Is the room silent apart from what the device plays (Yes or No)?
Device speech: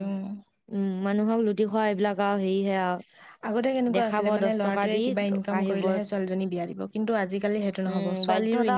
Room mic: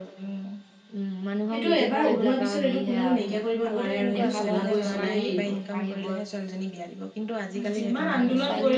No